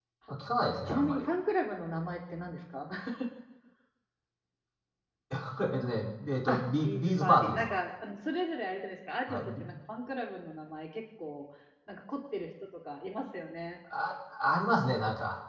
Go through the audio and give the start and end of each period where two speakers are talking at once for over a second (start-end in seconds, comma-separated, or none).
6.5-7.8